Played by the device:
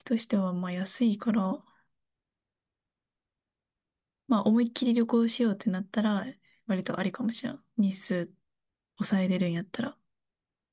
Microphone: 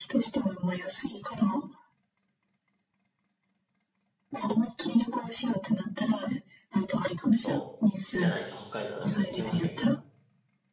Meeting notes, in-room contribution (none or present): present